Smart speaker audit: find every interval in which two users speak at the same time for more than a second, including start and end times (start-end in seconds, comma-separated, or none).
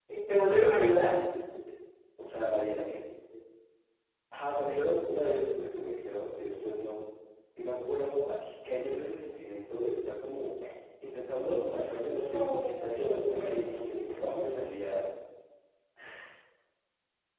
12.1-14.4